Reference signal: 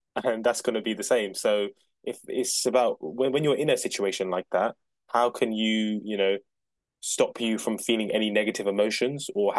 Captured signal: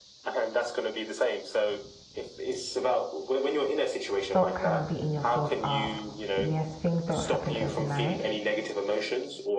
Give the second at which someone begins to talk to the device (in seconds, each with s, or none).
4.2 s